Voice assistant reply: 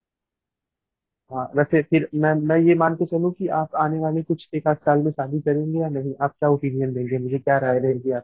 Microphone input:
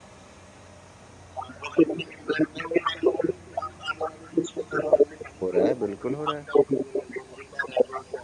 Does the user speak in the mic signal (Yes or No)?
Yes